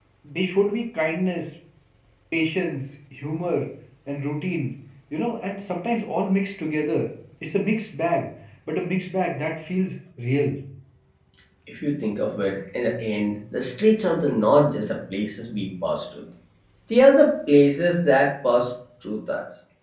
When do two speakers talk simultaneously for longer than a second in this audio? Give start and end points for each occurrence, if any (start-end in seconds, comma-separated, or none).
none